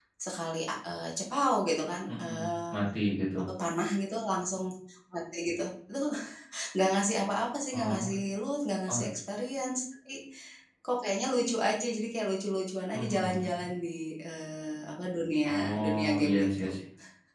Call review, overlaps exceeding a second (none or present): present